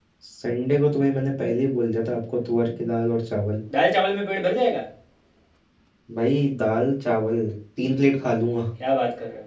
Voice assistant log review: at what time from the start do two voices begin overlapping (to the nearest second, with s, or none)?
none